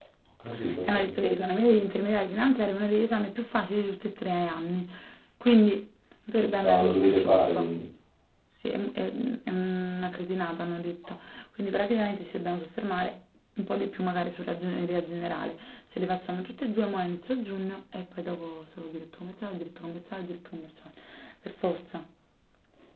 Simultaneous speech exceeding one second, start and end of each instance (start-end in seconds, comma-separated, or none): 6.4-7.7